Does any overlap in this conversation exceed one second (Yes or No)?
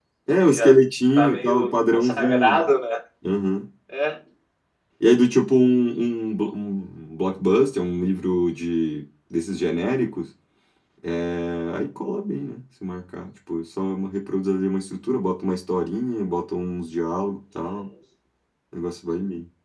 Yes